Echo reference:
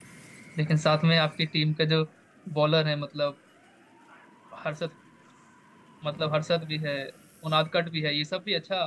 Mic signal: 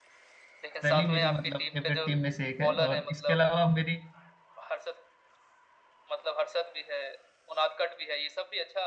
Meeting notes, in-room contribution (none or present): present